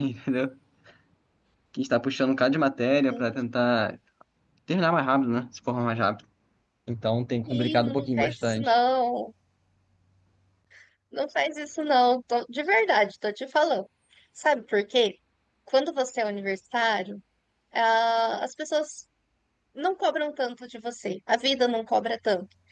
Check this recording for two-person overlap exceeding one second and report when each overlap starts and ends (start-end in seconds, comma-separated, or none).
7.5-8.7